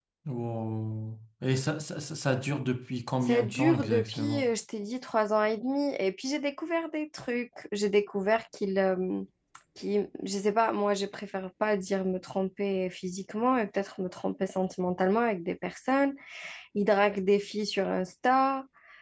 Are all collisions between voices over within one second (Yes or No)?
No